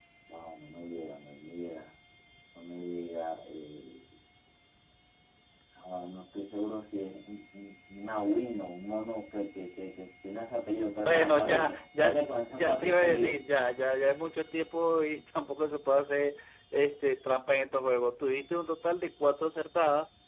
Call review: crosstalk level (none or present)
present